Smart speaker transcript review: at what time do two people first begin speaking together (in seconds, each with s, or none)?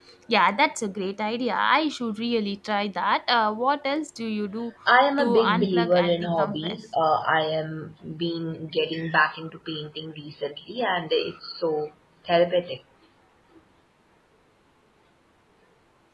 5.2 s